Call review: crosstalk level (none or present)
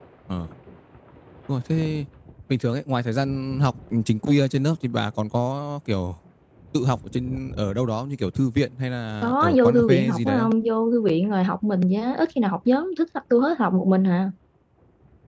present